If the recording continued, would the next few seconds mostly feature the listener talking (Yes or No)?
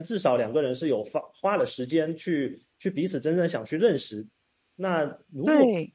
No